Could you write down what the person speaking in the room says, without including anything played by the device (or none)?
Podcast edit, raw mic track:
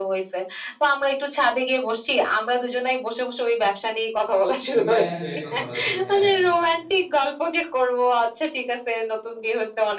রিল্যাক্স হয়ে কথা বলা যাচ্ছে। হ্যাঁ,